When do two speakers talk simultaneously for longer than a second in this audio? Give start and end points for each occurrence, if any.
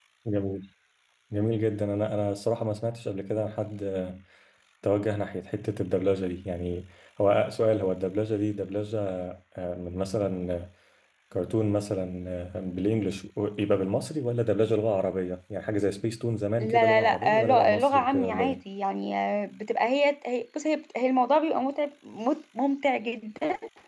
16.6-18.6

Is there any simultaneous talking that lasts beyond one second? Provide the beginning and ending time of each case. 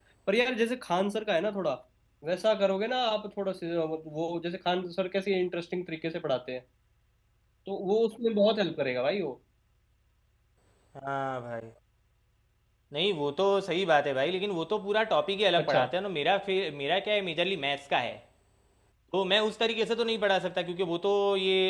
none

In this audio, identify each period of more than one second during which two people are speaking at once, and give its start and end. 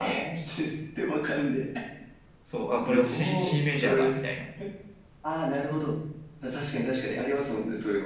2.7-4.1

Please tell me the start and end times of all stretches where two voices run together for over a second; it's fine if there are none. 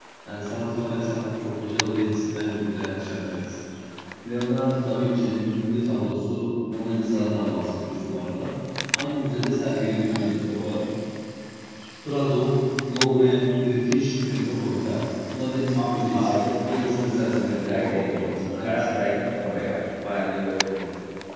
15.8-18.2

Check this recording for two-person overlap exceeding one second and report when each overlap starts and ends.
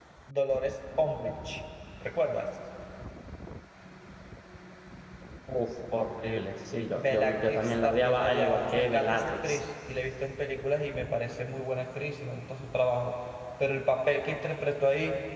7.0-9.6

